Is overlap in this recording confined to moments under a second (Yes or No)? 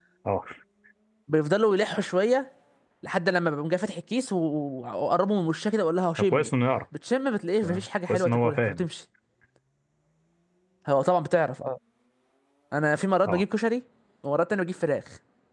No